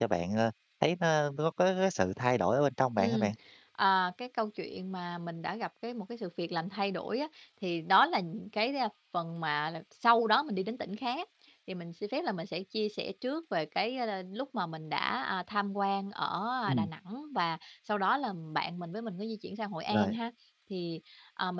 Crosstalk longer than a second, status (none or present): none